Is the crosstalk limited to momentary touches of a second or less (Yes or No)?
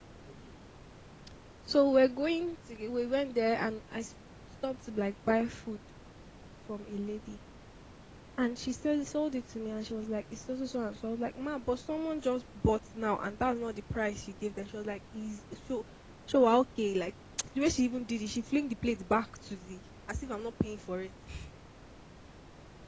Yes